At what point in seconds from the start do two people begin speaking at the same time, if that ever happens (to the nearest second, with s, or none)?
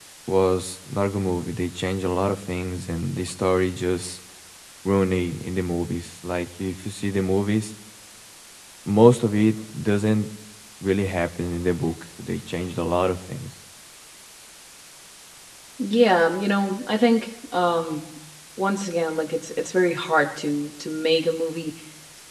none